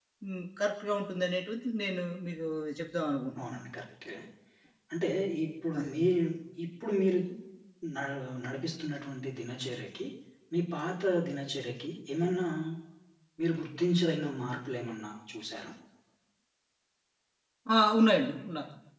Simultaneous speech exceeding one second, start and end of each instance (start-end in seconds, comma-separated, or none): none